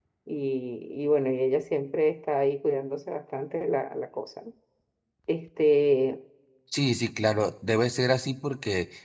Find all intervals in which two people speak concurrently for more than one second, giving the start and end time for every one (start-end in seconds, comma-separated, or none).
none